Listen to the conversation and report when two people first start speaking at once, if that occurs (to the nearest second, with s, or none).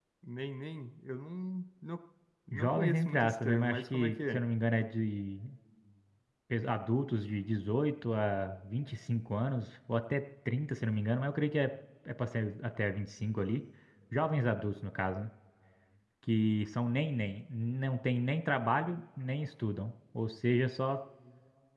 3 s